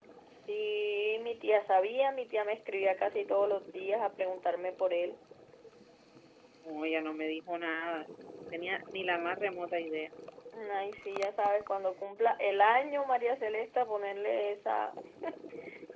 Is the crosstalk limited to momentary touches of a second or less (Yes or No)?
Yes